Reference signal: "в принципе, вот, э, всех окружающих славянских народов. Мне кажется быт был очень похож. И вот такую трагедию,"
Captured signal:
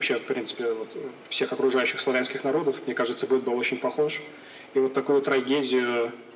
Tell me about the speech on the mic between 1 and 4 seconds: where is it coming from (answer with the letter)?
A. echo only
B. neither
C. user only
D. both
A